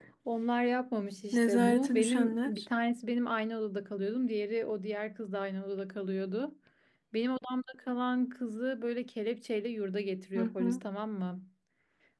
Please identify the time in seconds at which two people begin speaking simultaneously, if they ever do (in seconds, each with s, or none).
1.3 s